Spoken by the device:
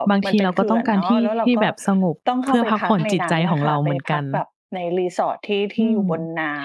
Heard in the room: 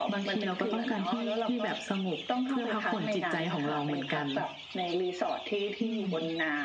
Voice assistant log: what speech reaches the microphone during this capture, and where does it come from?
echo only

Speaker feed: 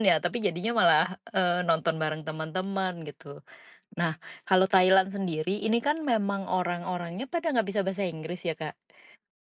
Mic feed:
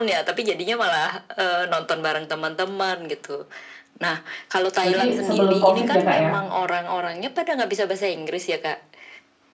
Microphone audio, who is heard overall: both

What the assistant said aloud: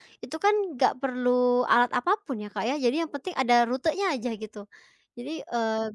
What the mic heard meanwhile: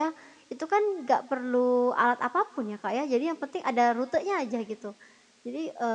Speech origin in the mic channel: echo only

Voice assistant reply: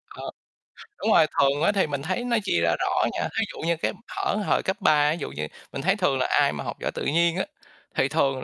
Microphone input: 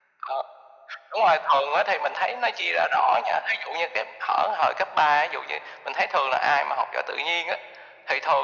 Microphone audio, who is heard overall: echo only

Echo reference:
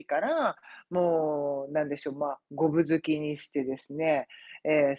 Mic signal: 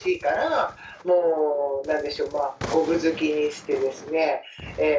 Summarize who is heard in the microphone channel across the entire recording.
echo only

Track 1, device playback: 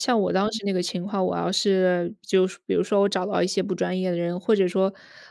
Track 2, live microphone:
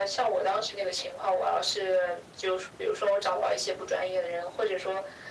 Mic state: echo only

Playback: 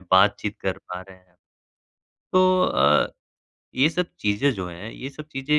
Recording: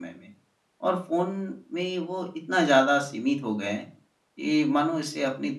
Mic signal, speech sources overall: user only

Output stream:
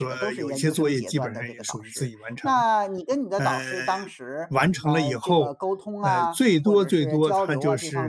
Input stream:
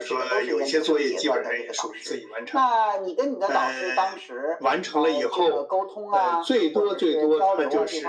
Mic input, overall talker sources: echo only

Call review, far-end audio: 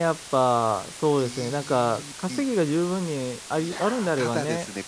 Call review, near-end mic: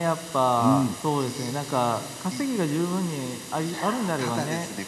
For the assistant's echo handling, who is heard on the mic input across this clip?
both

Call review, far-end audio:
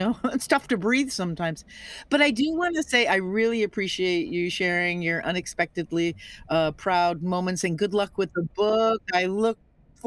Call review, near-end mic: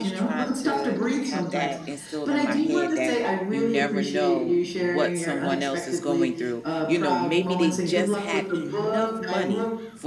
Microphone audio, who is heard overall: both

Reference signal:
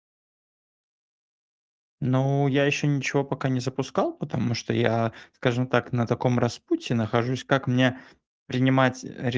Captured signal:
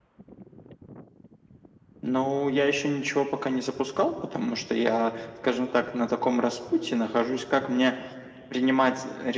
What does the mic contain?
echo only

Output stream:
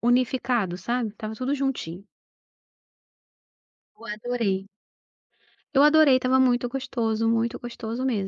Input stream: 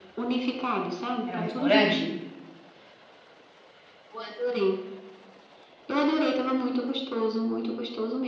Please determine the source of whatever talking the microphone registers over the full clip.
both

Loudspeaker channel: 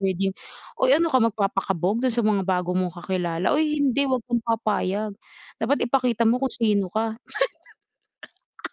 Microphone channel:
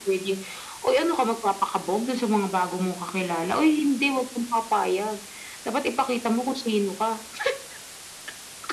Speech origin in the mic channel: echo only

